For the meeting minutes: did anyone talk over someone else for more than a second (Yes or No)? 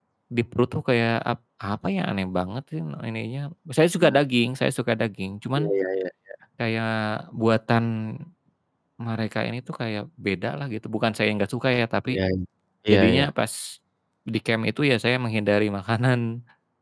No